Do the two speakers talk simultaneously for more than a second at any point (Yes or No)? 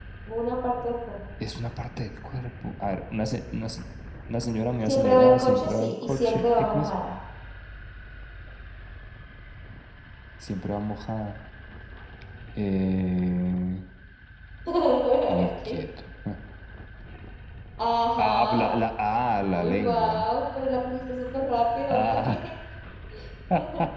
Yes